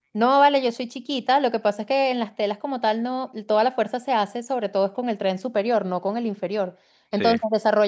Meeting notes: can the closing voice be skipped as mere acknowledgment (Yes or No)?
Yes